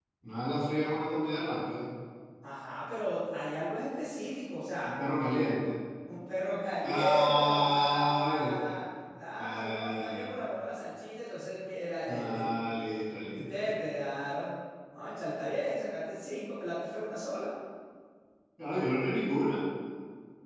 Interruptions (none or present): present